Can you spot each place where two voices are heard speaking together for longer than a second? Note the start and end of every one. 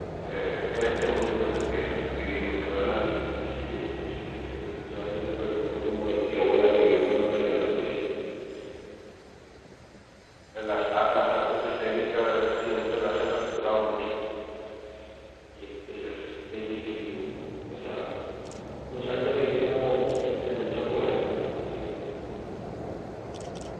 none

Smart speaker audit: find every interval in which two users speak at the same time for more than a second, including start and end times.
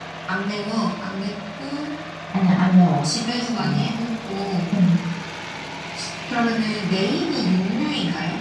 none

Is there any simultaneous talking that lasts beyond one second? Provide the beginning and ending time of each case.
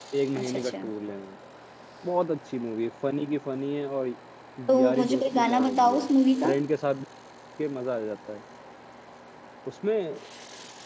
4.7-6.1

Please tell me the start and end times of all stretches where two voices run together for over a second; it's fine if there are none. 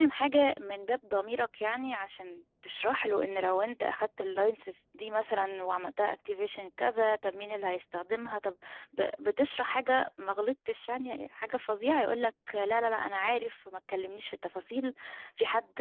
none

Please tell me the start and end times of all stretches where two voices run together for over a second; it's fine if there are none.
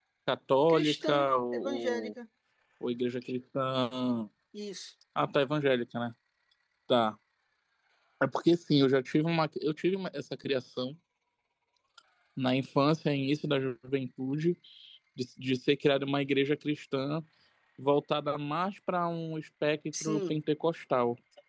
0.7-2.1

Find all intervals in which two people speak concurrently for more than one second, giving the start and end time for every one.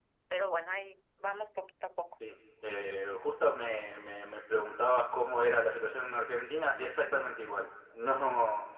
none

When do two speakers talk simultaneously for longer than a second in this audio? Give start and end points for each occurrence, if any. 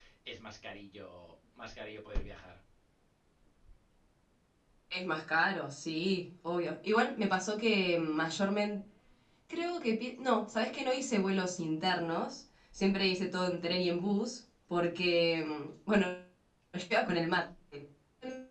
none

